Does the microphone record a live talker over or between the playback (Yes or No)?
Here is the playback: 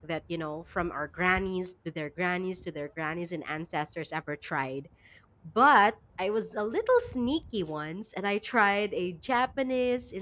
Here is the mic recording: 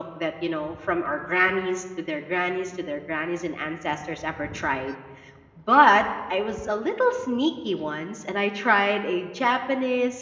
No